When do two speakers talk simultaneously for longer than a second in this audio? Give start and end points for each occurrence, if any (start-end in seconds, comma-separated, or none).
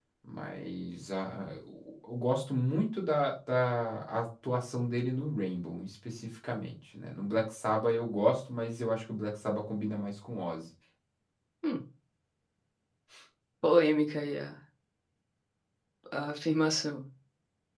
none